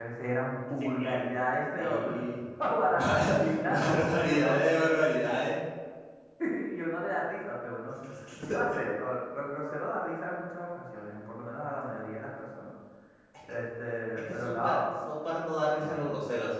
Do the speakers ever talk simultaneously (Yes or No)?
Yes